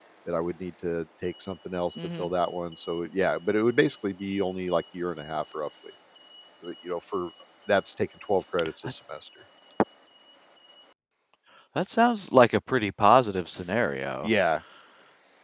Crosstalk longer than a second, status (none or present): none